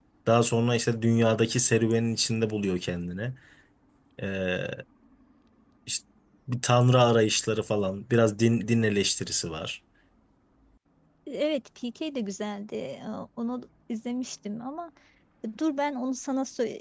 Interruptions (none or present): none